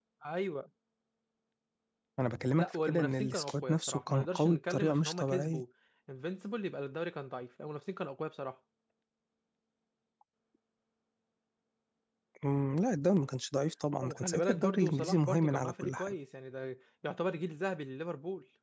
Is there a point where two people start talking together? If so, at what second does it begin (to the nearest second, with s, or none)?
3 s